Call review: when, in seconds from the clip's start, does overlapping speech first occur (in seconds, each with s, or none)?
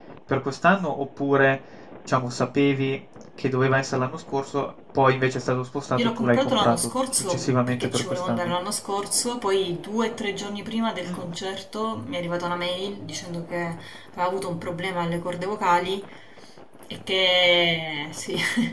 5.9 s